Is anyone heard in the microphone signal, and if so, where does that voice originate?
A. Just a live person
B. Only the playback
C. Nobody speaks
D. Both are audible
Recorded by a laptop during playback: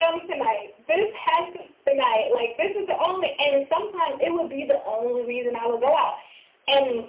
B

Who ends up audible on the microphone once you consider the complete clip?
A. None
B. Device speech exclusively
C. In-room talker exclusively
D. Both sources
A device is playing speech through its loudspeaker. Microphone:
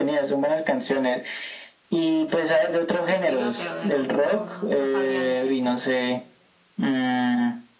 D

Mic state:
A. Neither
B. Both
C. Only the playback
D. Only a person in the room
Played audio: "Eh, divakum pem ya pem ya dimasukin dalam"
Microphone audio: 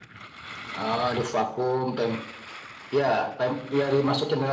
C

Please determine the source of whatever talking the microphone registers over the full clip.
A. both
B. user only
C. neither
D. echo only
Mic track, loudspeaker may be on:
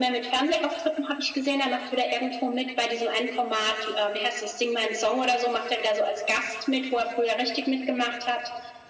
D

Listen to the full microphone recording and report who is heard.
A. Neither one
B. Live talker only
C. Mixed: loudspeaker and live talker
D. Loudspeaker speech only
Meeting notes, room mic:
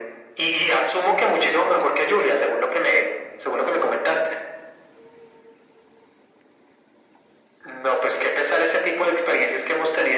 D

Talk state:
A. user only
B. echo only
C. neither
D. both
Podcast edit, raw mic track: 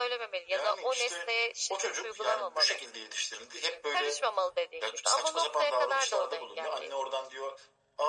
B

